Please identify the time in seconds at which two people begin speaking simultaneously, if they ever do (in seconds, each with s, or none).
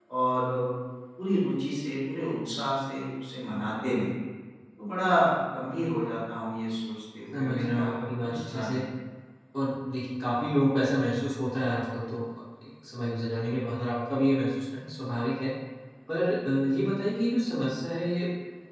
7.3 s